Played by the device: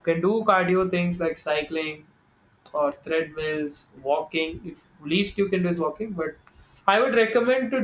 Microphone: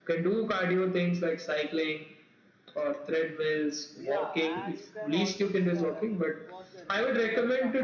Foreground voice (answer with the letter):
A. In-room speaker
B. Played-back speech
B